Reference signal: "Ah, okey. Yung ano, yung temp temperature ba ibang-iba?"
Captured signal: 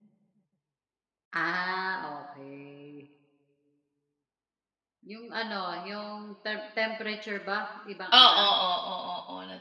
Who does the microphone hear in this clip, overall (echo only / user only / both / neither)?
both